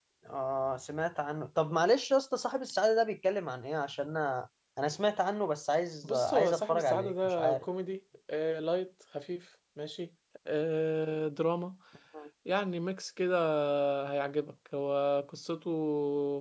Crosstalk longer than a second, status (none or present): present